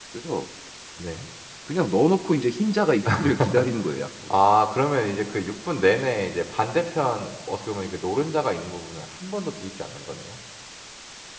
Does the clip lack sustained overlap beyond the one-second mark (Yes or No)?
Yes